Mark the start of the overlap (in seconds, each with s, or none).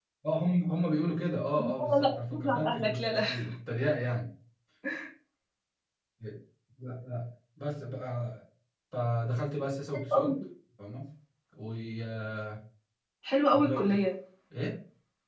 1.6 s